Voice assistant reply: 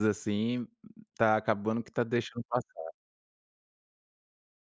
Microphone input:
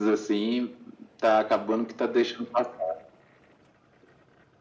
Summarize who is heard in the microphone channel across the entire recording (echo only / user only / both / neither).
echo only